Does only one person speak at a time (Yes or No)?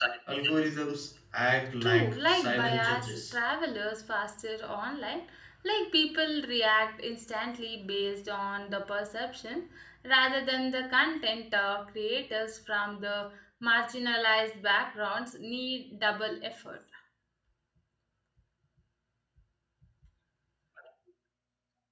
No